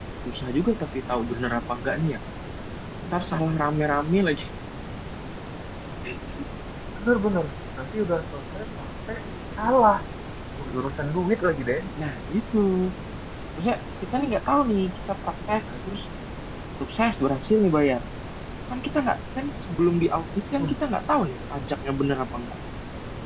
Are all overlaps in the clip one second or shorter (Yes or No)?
Yes